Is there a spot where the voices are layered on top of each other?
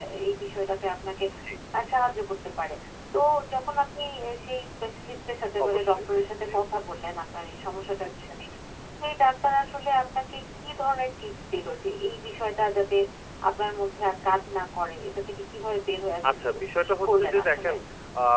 Yes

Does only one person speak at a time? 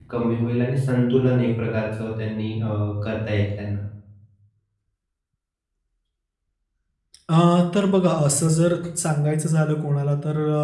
Yes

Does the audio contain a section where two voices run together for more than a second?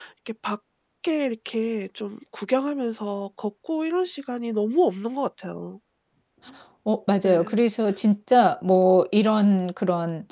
No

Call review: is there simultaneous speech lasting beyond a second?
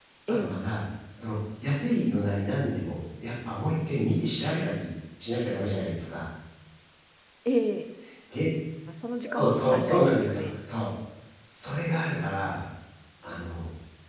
Yes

